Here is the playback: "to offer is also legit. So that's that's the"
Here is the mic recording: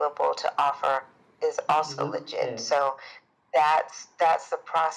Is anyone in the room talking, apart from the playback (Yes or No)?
Yes